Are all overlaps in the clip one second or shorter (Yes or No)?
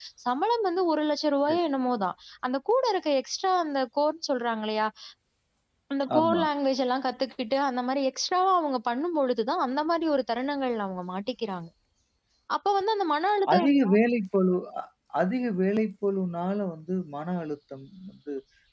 Yes